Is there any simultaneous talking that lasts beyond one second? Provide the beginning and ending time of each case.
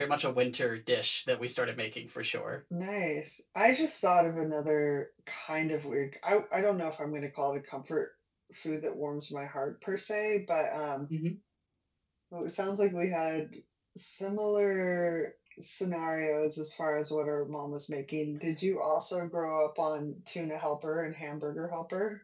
none

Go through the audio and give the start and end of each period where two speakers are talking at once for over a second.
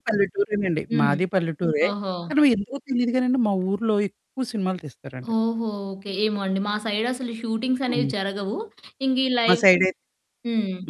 none

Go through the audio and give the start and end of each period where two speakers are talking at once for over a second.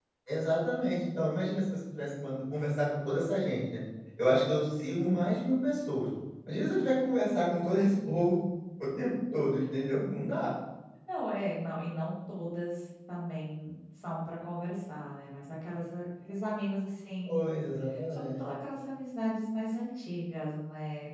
none

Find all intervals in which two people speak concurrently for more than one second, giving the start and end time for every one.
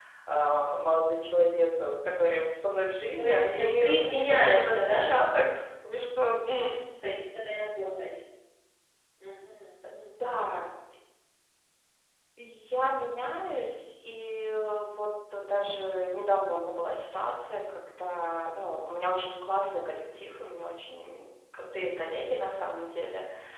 3.2-5.0

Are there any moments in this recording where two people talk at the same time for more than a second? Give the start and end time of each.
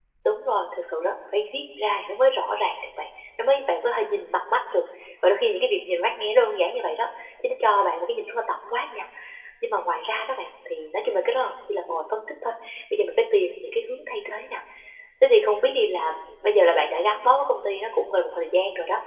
none

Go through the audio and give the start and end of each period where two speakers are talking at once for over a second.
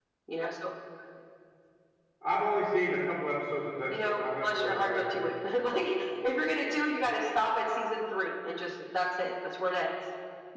3.9-5.3

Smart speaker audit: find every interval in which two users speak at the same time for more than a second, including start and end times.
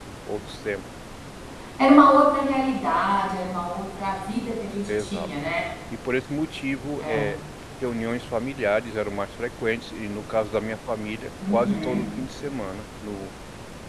none

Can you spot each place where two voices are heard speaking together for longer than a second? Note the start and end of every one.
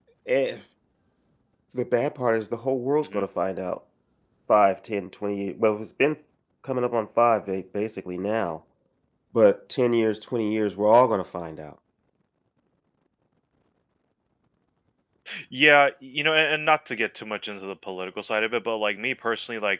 none

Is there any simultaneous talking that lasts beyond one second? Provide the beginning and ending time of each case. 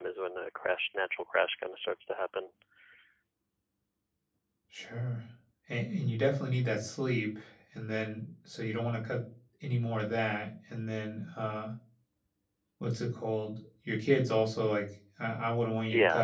none

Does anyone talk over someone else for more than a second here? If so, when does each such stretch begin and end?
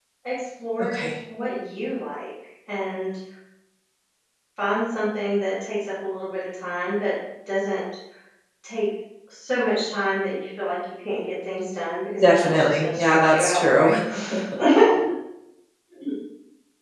12.2-13.9

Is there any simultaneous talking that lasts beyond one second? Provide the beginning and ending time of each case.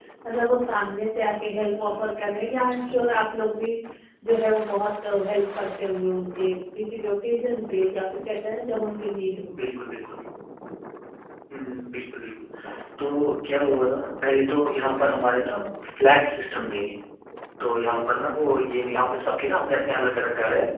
none

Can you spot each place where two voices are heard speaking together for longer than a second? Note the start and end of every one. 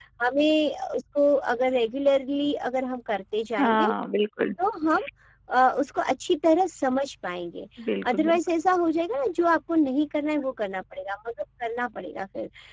none

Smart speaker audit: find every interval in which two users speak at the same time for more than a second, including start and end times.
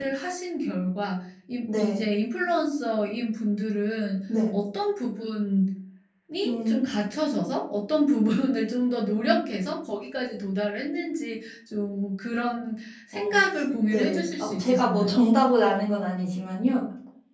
13.9-15.2

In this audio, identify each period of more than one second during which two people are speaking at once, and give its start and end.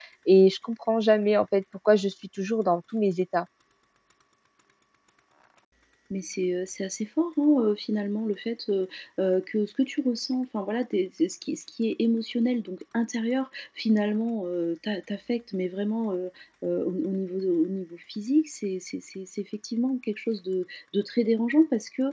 none

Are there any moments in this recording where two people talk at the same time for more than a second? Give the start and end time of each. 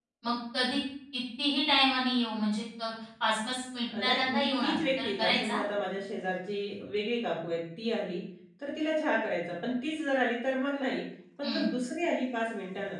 4.0-5.6

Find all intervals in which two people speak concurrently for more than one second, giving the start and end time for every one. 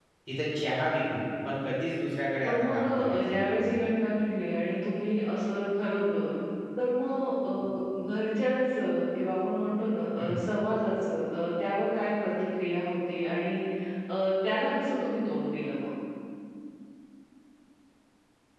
2.4-3.8

